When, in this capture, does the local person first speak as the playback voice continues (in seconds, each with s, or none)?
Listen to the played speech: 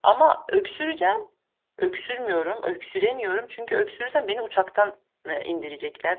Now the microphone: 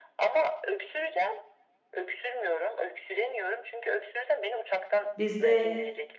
5.2 s